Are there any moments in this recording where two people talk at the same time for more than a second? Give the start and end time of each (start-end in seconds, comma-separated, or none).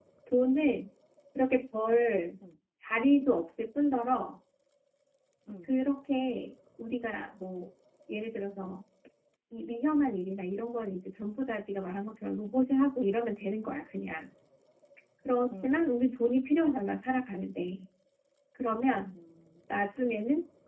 none